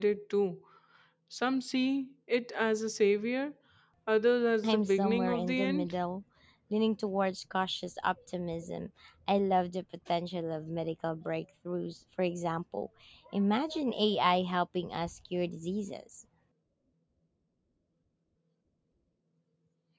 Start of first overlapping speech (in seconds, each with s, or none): 4.6 s